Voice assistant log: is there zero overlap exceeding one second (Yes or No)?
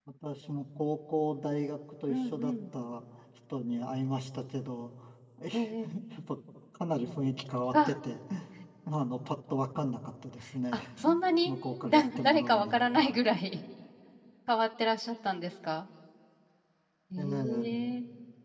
No